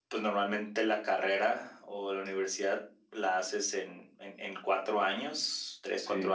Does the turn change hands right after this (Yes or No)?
No